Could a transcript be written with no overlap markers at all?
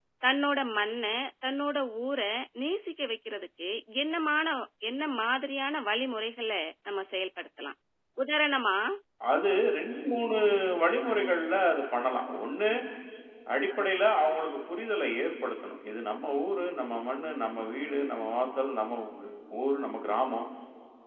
Yes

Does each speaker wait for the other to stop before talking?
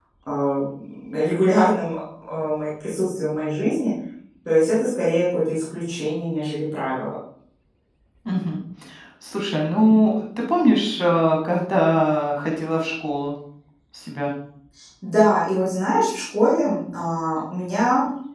Yes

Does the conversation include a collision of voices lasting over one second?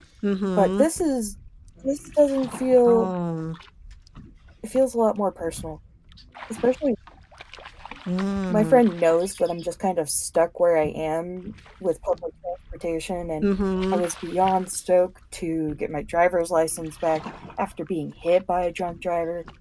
No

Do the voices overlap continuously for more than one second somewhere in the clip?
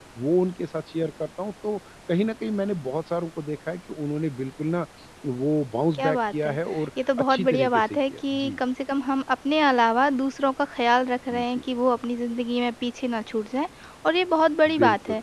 Yes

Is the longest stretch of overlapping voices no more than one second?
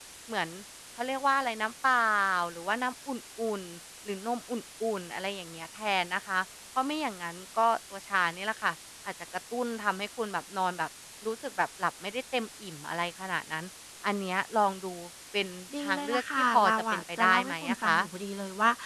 No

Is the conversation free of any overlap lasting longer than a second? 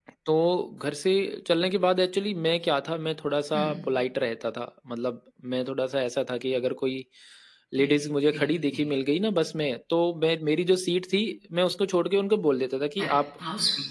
Yes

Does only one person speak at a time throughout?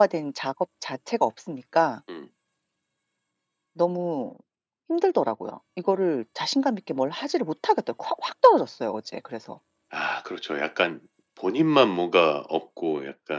Yes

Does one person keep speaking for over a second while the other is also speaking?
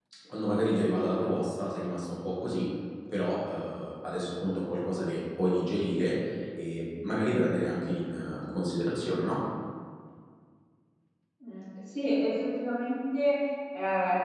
No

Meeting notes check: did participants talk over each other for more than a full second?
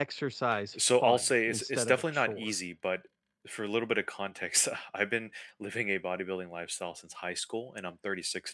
Yes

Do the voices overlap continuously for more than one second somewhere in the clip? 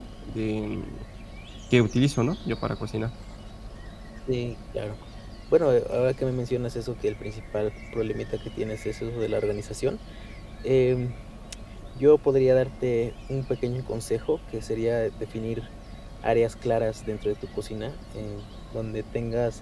No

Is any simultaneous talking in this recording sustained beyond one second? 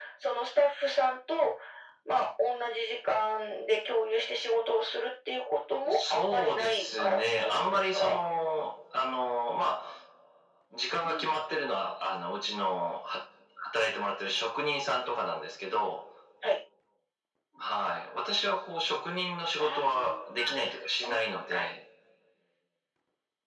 Yes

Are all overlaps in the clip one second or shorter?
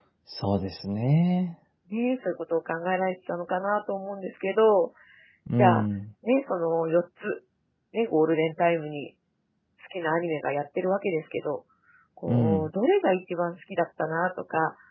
Yes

